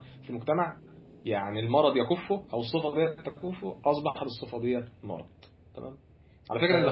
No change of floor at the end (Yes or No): Yes